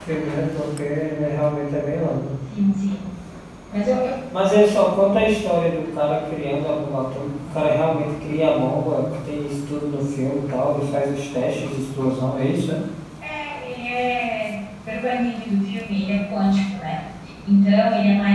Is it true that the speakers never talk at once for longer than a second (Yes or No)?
Yes